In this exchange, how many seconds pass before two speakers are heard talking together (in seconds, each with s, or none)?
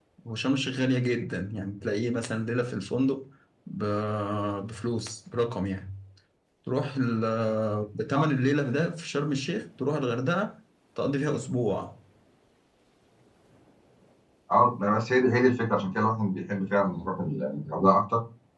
none